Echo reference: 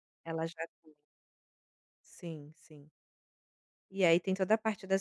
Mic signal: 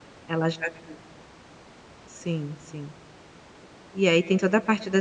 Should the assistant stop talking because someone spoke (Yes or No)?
No